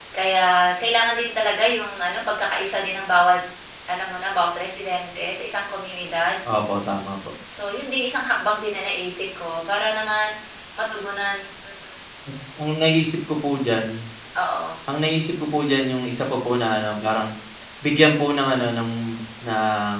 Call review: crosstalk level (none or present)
none